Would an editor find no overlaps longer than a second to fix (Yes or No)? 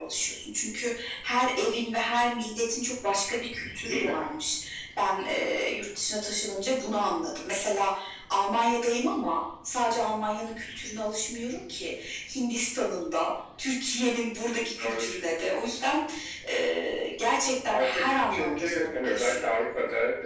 No